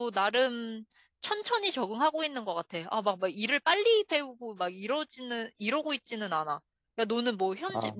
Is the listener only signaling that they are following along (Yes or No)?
Yes